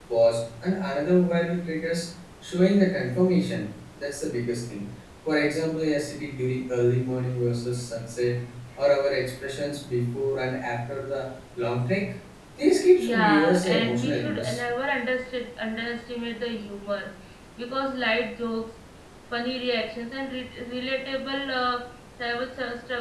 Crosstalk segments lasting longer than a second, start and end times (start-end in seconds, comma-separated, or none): 13.0-14.6